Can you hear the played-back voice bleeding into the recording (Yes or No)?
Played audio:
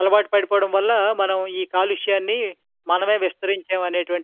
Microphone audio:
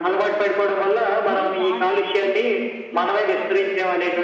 Yes